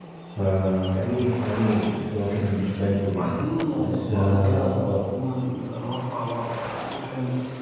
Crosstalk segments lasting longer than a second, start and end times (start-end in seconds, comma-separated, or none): 3.8-5.0